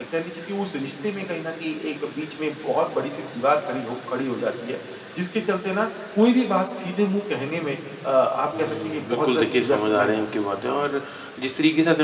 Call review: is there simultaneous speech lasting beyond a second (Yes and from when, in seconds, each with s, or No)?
Yes, from 8.5 s